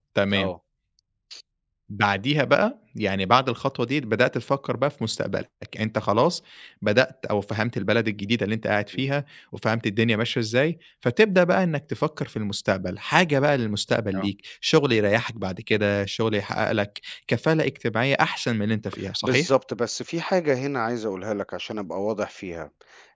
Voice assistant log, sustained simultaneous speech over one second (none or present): none